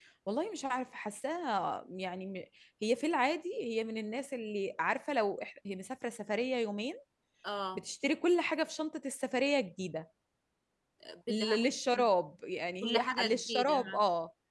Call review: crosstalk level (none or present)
present